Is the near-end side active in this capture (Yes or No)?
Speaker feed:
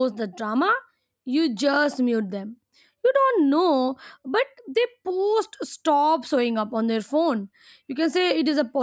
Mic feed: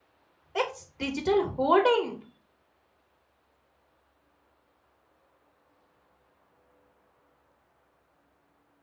Yes